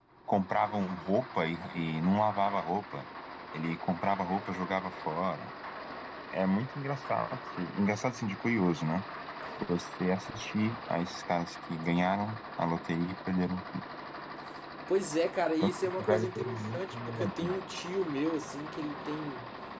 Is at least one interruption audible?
Yes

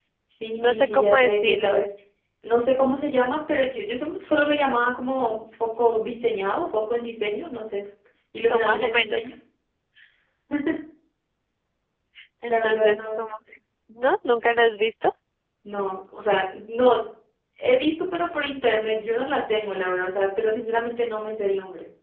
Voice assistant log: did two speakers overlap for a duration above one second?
Yes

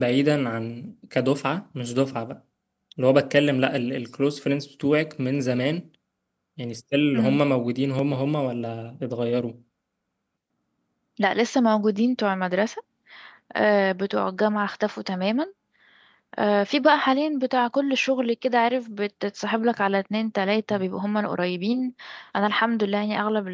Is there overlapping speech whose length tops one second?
No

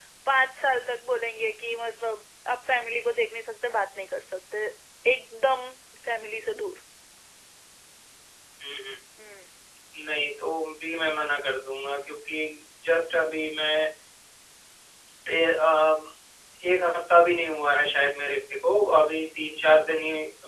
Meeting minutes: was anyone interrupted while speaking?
No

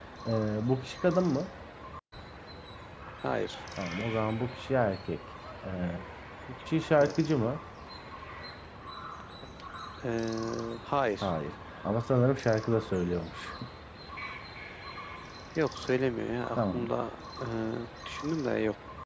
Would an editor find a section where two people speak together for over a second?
No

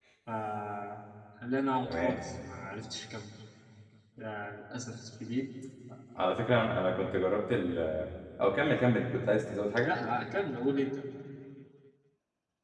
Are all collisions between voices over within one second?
Yes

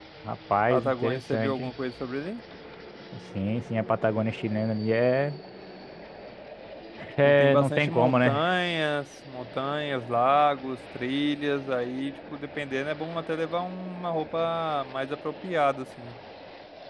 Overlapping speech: Yes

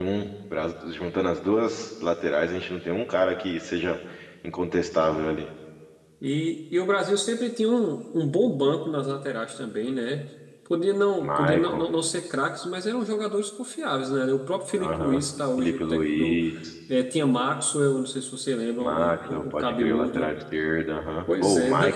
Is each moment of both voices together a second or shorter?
No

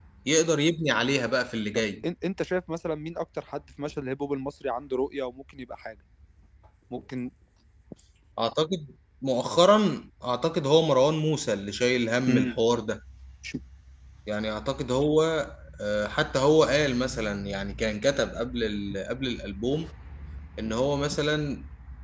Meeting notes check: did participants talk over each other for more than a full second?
No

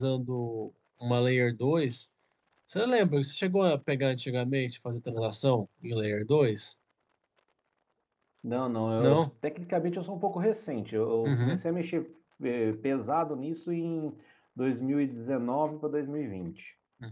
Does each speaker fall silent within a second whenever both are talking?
Yes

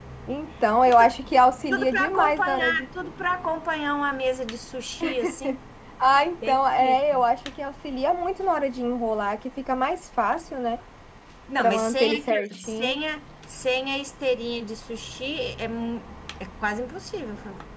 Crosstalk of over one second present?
Yes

